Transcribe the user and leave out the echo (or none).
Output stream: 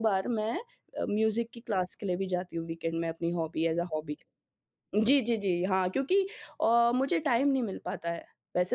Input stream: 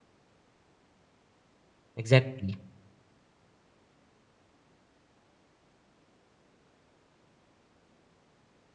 एग्ज़ैक्टली।